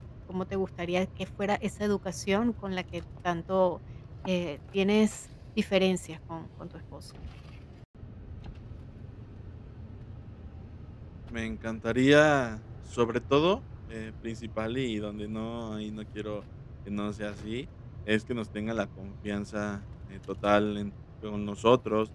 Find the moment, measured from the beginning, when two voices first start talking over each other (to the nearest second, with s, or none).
none